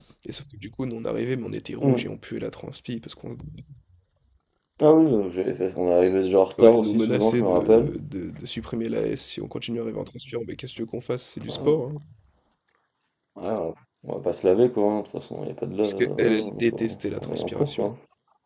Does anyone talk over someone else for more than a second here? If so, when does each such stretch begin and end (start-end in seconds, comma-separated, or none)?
6.6-7.9, 15.8-17.9